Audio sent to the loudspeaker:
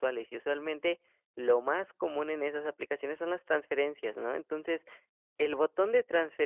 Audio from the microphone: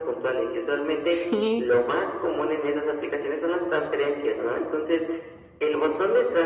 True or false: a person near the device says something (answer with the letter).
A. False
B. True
B